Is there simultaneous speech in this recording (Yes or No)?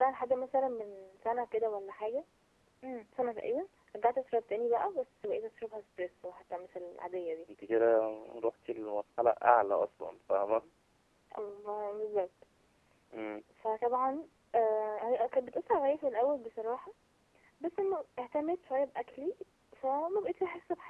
No